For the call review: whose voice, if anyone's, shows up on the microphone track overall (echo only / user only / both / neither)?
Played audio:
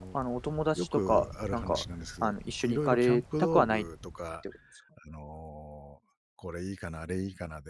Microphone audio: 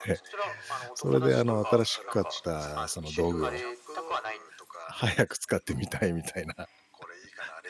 both